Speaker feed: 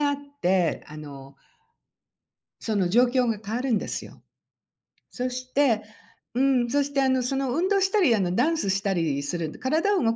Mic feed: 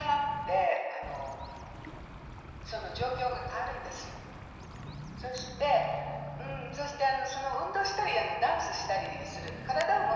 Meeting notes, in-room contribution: none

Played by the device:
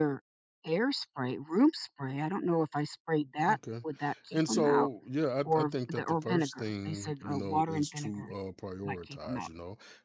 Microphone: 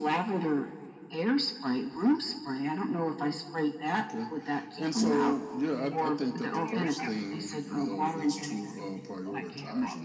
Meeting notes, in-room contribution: present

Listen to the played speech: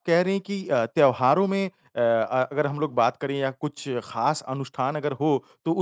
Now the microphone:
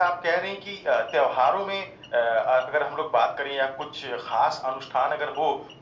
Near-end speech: none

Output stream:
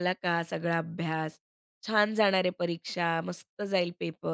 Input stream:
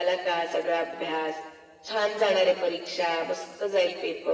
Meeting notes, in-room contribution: none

